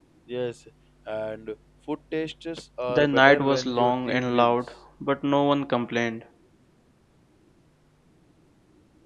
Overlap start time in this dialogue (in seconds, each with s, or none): 2.9 s